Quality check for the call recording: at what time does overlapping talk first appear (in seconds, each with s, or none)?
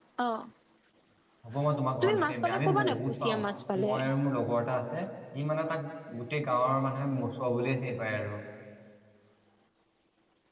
2.0 s